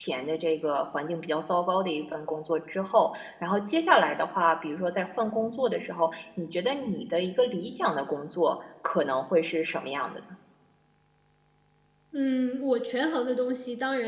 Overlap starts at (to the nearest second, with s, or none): none